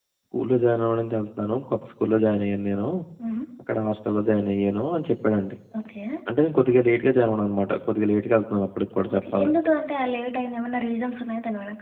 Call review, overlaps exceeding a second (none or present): none